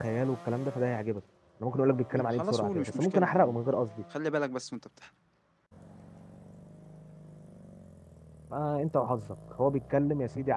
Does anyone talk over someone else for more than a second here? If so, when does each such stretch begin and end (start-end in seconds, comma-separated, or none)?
2.1-3.6